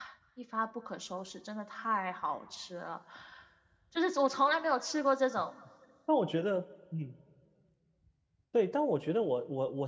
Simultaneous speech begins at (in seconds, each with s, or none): none